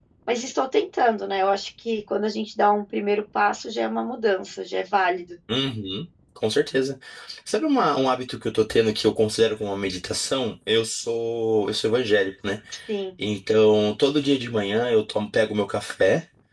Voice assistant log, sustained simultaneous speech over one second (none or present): none